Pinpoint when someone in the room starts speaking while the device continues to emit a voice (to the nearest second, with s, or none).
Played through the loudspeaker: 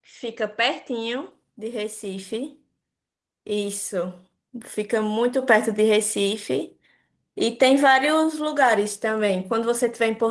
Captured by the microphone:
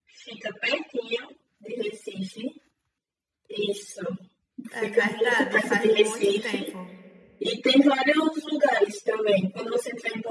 5 s